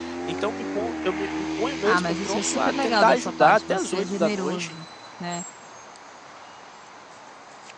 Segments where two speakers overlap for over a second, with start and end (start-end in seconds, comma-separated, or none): 1.8-4.8